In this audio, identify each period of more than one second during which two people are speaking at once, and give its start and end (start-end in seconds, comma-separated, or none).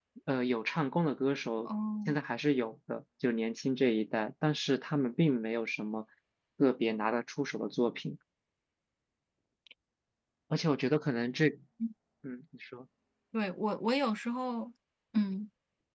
none